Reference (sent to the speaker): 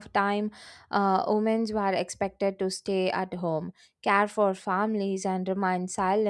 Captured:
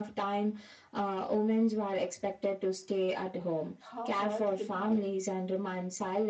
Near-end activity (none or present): present